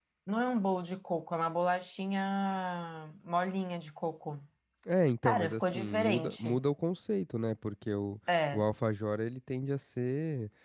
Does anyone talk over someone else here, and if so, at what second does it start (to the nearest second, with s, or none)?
5 s